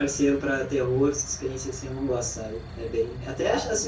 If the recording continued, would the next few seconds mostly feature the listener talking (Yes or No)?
No